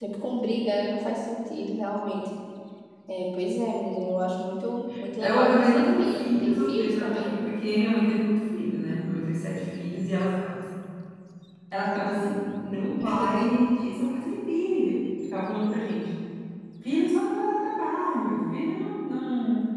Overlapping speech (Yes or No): Yes